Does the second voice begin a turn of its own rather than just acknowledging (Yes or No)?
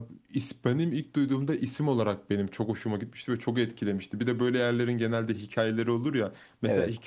No